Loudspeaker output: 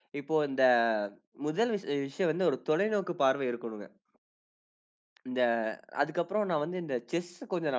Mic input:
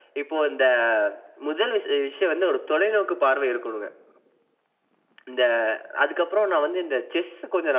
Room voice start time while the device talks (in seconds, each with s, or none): none